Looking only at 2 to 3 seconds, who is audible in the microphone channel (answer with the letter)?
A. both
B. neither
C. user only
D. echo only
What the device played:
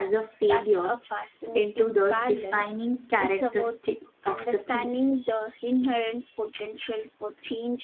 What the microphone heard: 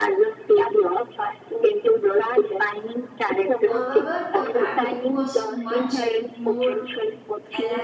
D